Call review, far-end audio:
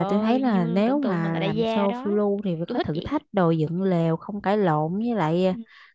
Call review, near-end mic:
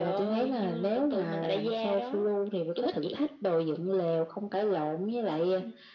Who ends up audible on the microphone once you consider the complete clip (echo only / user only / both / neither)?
echo only